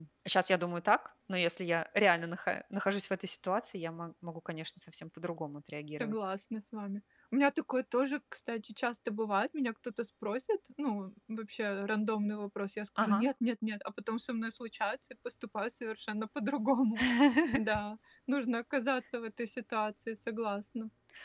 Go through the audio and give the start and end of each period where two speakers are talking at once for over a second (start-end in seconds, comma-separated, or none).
none